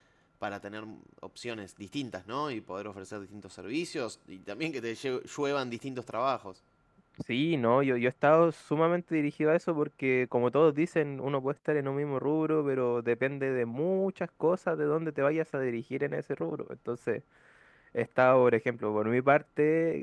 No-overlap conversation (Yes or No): Yes